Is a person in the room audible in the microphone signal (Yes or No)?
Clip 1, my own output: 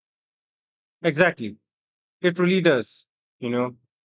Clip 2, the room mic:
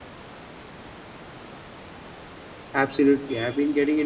Yes